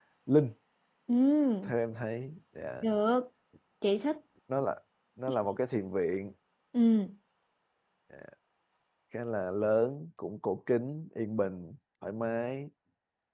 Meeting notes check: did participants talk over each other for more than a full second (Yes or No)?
No